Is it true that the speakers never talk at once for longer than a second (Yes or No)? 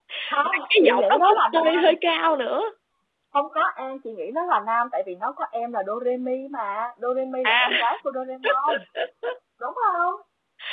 No